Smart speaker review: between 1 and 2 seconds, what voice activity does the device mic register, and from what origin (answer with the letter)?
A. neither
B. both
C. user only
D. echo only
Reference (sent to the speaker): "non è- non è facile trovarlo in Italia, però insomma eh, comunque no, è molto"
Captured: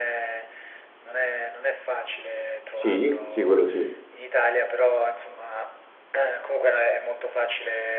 D